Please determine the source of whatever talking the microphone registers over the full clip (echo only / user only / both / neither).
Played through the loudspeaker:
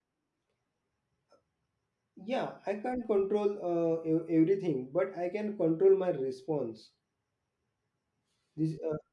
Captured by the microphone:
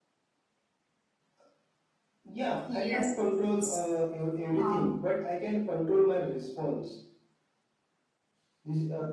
both